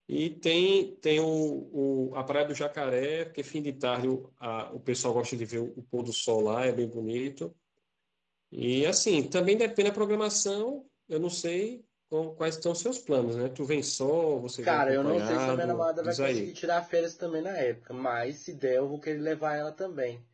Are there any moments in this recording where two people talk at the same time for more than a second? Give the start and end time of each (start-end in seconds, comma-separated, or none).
14.6-16.5